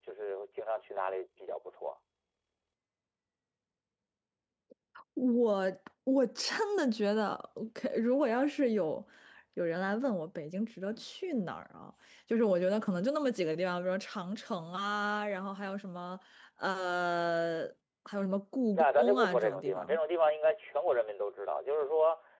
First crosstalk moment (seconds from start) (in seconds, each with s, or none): 18.8 s